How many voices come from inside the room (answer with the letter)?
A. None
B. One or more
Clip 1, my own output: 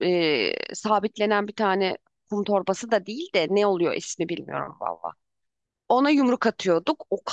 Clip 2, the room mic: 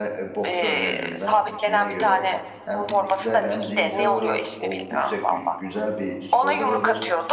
B